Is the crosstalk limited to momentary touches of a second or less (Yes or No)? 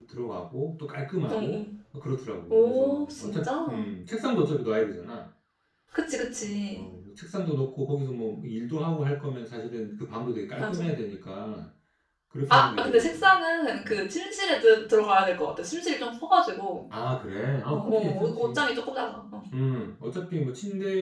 No